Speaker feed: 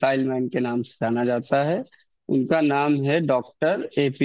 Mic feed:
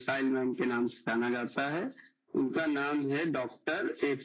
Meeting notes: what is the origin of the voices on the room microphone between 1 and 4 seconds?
echo only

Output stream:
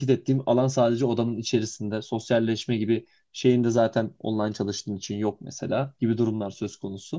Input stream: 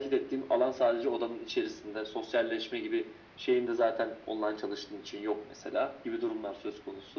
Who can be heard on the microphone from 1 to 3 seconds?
echo only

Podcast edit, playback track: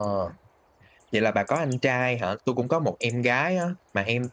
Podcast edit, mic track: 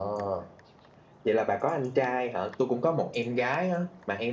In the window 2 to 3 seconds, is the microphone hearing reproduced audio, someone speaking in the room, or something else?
echo only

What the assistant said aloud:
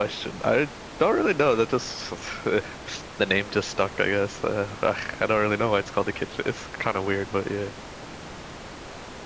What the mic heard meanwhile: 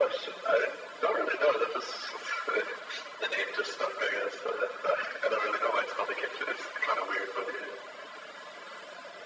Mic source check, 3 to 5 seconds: echo only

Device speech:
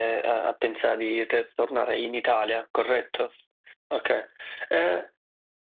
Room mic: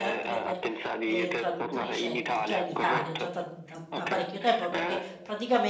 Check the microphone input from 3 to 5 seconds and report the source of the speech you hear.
both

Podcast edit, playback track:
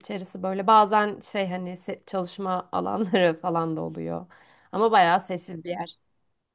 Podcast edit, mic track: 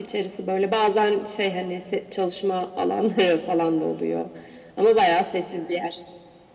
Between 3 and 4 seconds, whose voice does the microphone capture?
echo only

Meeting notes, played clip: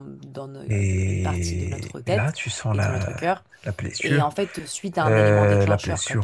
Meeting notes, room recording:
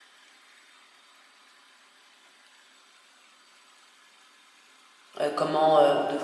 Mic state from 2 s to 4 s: neither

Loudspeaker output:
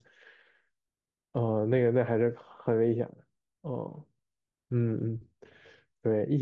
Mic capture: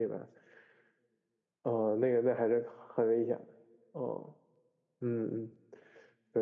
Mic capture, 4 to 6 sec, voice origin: echo only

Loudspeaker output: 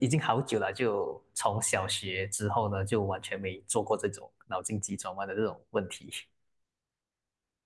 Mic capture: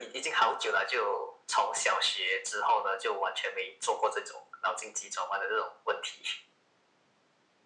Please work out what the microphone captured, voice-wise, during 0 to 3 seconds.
echo only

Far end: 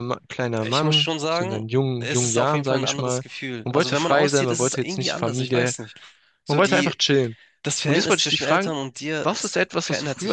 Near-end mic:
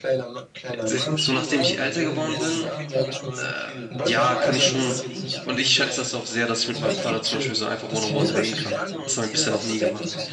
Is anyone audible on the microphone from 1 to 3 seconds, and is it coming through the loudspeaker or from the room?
both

